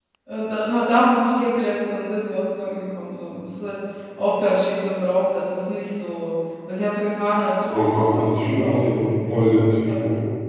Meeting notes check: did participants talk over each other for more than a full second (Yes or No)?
Yes